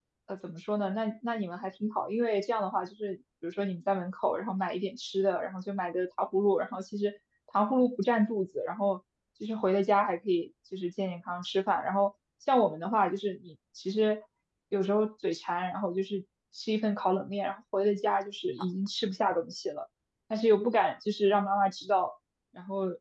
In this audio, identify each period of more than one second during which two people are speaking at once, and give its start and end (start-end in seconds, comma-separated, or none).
none